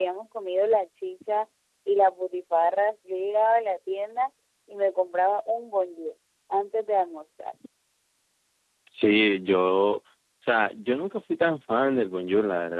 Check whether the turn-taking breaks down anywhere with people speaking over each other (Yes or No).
No